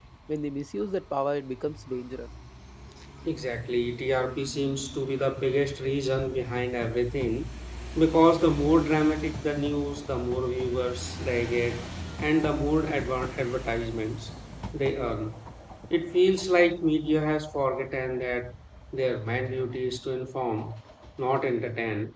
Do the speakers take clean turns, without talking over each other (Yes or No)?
Yes